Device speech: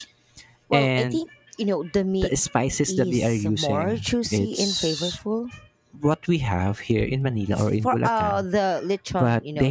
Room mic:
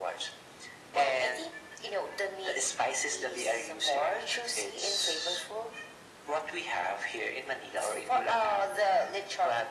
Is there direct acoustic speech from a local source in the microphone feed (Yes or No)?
No